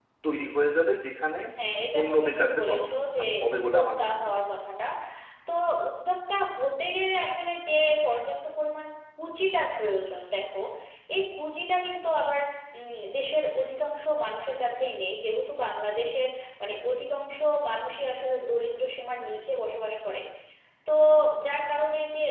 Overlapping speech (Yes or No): Yes